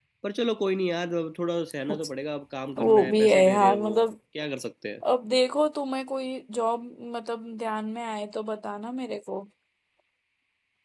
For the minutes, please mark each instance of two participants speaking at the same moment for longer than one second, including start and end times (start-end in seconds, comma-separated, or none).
2.8-4.0